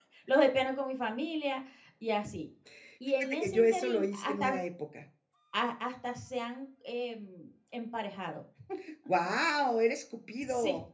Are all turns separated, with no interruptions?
No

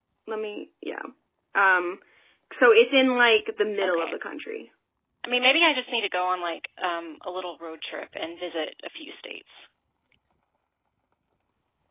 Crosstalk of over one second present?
No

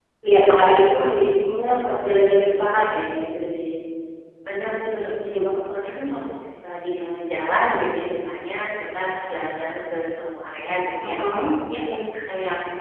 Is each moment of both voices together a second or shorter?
Yes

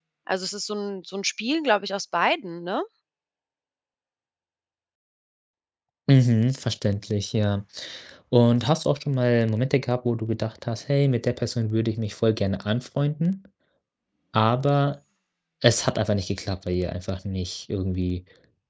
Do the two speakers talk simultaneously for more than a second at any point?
No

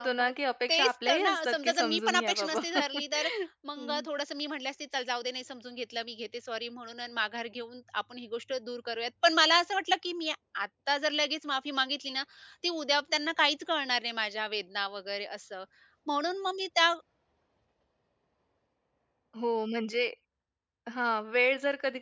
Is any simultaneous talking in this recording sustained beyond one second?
Yes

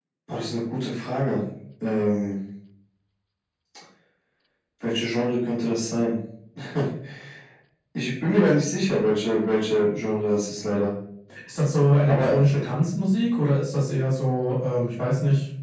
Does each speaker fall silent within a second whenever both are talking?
Yes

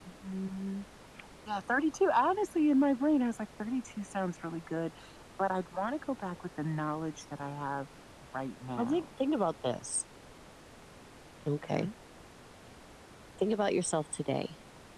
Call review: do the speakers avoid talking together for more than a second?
Yes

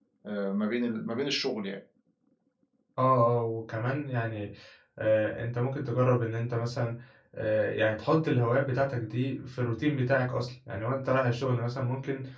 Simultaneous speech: No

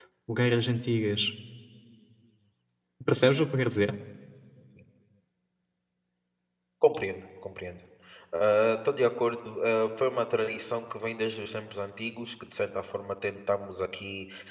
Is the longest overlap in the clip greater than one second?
No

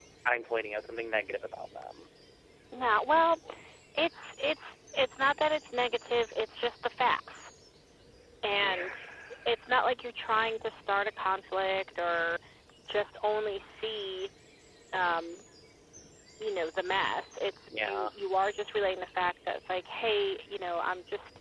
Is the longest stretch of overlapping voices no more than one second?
Yes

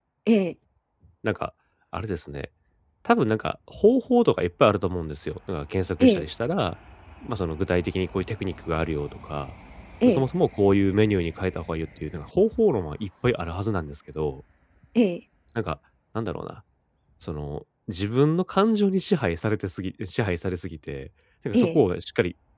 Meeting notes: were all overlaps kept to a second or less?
Yes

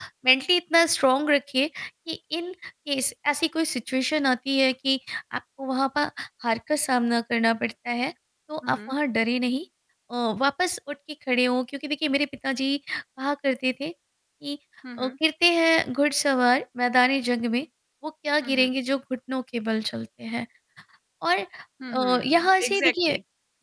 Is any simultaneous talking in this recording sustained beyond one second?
Yes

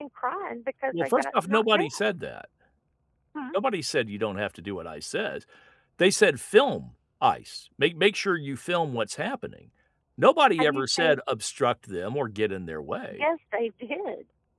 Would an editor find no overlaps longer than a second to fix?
No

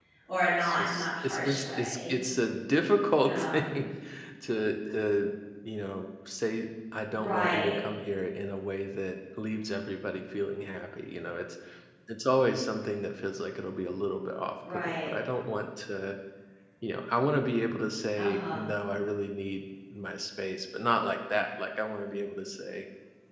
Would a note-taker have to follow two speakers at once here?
Yes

